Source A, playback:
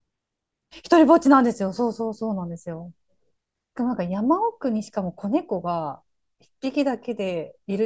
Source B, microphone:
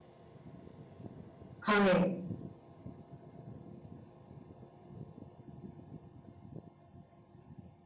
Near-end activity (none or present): present